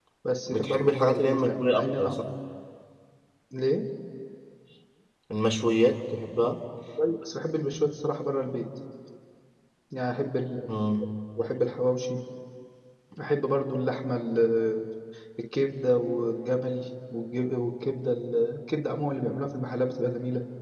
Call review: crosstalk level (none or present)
present